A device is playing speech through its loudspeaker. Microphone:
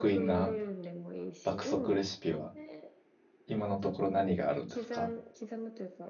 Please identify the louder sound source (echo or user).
user